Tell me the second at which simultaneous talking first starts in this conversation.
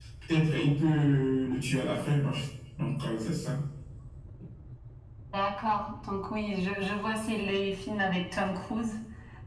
none

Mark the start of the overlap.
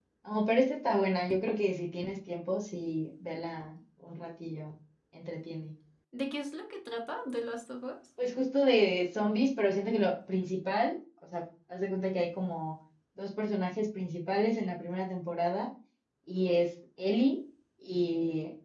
none

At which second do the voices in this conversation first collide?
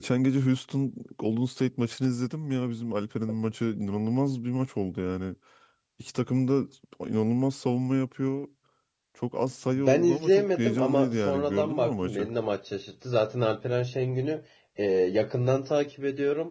9.8 s

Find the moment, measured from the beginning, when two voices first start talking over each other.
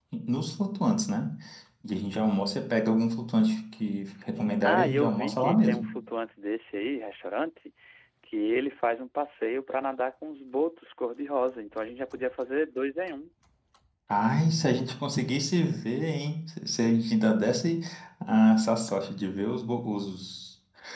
4.6 s

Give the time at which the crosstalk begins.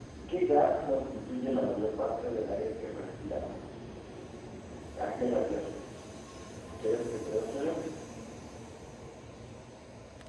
none

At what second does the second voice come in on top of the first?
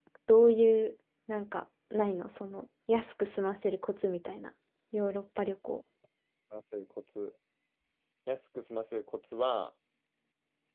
none

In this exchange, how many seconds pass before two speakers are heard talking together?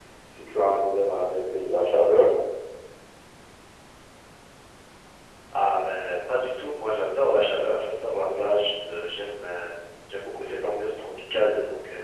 none

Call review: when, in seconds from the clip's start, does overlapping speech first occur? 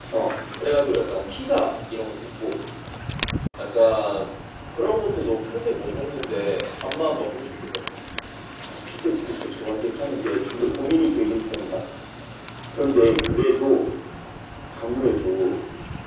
none

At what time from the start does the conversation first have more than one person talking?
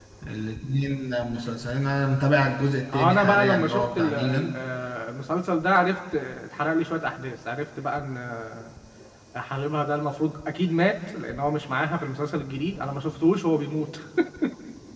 2.9 s

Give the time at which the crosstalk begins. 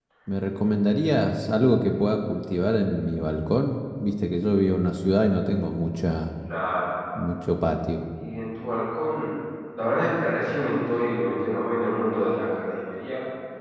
none

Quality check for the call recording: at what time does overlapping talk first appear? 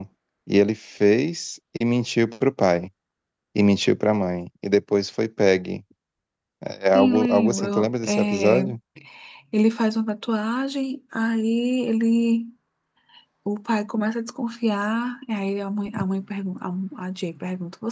6.9 s

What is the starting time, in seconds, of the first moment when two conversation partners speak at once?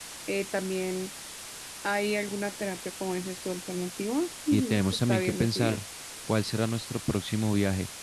4.5 s

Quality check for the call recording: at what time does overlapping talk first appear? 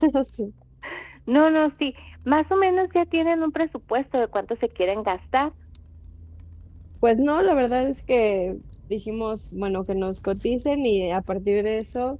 none

